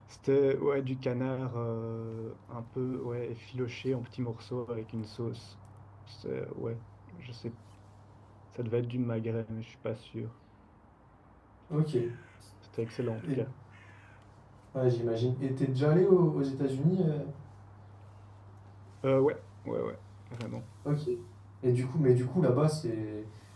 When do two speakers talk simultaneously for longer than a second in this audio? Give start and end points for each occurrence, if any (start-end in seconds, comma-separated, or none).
none